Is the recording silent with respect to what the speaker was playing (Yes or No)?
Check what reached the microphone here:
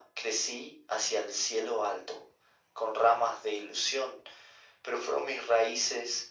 No